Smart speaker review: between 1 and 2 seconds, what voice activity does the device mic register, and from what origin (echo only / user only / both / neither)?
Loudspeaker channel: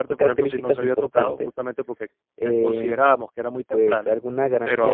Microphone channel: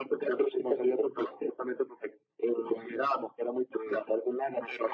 echo only